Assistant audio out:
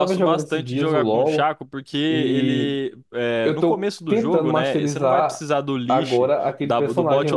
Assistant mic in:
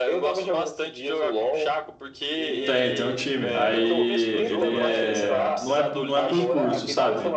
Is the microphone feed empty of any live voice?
No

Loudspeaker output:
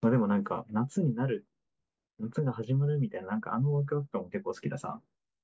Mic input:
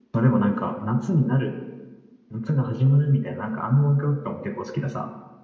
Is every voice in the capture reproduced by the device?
Yes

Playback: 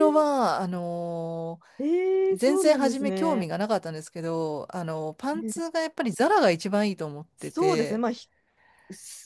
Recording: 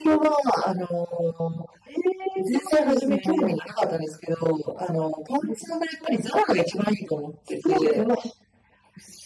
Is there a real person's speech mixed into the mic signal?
No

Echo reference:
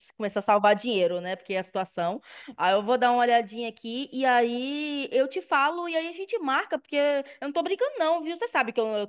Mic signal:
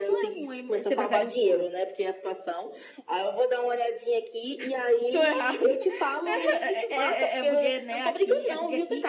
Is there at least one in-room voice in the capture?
Yes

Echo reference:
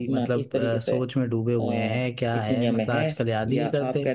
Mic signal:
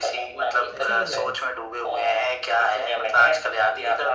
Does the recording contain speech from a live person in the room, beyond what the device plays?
Yes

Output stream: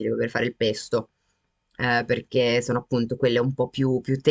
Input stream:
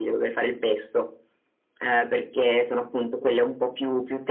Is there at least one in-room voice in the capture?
No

